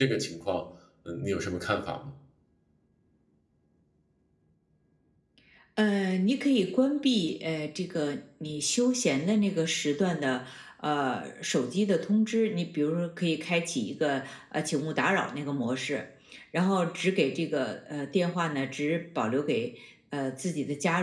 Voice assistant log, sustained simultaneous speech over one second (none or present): none